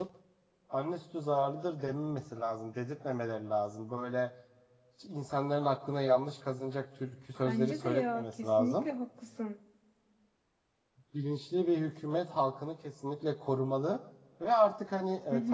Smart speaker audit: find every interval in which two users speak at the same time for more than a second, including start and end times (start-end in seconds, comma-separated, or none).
7.5-8.8